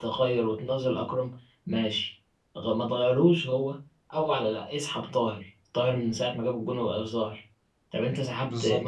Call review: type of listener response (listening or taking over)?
listening